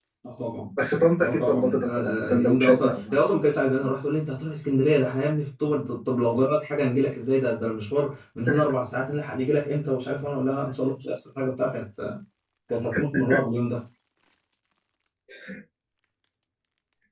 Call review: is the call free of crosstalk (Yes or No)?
No